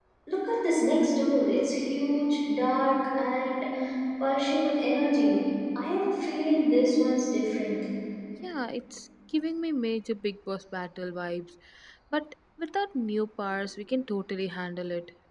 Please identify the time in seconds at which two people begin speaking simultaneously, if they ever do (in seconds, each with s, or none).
none